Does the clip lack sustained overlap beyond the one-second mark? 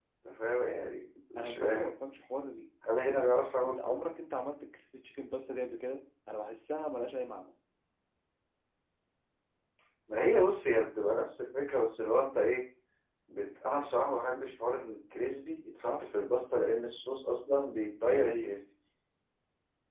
Yes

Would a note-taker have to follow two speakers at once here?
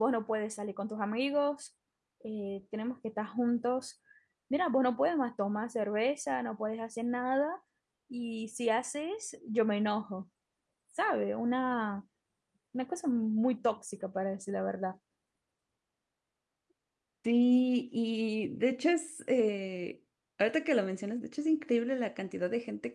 No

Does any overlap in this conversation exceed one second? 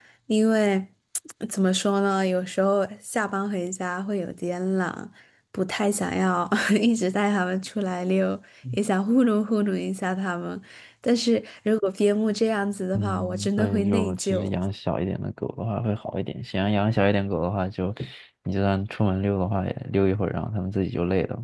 Yes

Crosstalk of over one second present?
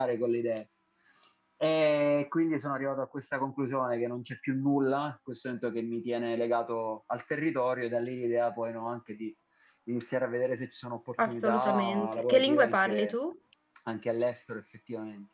Yes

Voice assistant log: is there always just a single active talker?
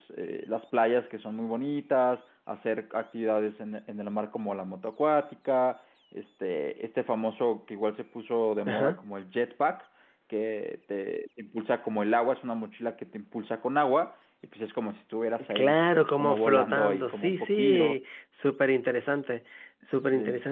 No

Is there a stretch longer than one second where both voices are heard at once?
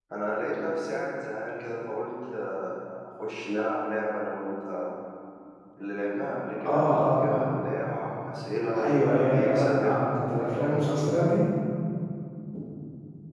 Yes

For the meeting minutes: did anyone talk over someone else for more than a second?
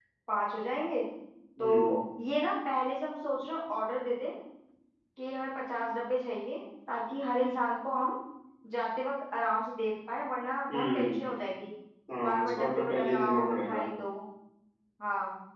Yes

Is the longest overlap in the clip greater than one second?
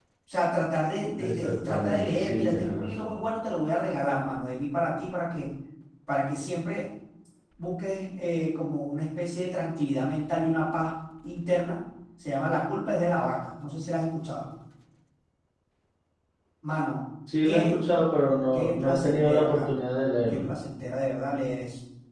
Yes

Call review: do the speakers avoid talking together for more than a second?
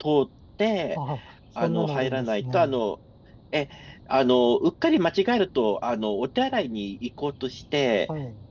No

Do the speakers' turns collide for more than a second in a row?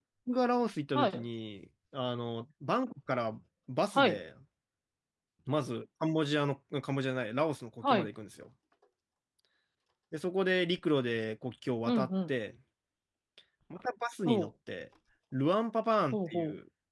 No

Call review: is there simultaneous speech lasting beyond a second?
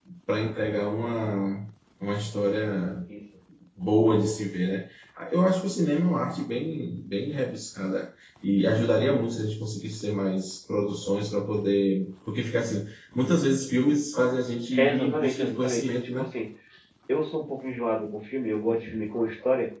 Yes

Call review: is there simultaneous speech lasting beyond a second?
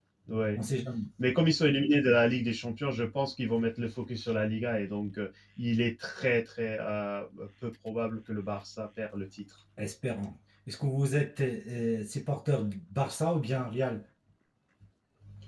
No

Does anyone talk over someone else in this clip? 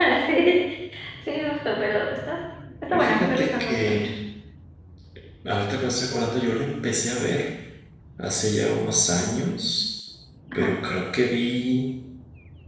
Yes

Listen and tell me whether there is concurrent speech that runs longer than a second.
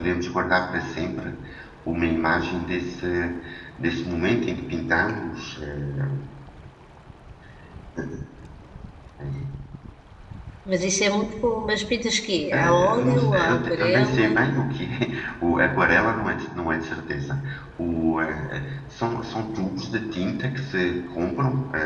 Yes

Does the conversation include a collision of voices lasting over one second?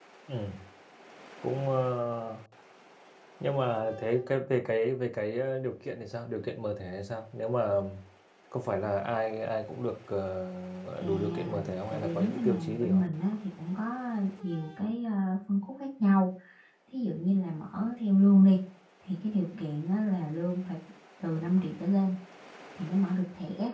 Yes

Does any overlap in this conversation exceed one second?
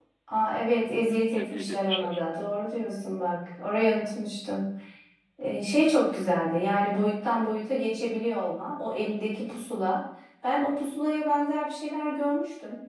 Yes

